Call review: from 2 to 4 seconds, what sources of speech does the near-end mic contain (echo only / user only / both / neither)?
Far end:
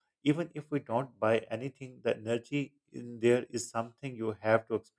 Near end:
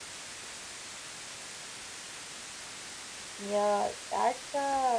user only